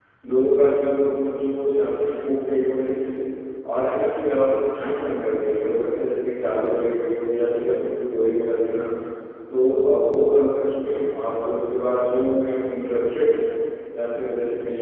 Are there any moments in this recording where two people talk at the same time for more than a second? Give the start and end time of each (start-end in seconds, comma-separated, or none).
none